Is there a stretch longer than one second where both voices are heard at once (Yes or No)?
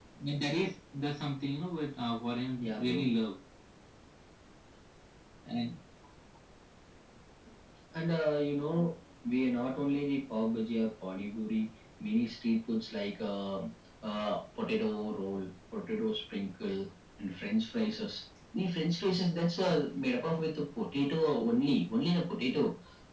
No